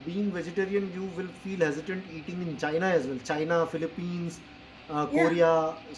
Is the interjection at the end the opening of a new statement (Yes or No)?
No